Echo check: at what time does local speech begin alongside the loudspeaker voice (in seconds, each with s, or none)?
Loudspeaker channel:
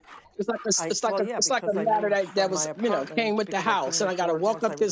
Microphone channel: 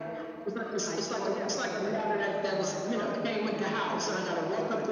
none